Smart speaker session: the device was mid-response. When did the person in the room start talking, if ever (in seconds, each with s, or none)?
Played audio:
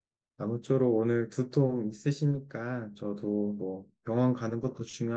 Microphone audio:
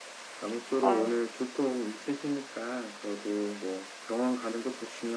0.8 s